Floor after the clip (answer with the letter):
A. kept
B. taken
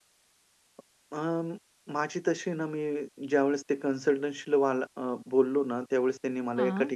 A